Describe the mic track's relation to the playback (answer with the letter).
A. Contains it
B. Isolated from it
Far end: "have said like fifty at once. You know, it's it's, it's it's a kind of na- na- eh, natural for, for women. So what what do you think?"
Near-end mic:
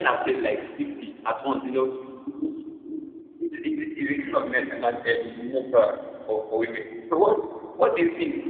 A